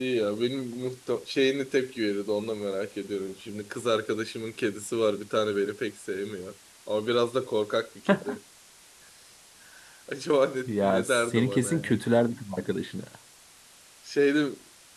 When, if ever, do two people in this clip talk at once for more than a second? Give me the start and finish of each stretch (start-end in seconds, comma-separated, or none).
10.7-12.0